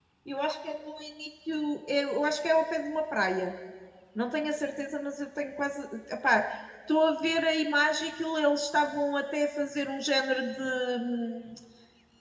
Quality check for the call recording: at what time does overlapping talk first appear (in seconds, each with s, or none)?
none